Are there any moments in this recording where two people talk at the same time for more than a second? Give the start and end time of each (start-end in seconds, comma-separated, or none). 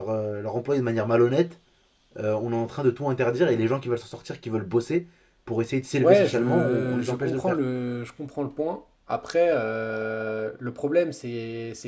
6.0-7.6